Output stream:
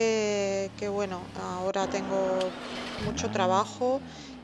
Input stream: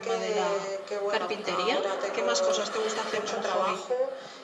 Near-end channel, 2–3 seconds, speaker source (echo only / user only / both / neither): both